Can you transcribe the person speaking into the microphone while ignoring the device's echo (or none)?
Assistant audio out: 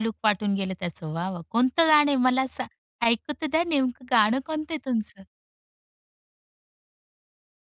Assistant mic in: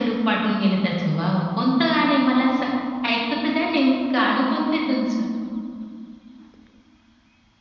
none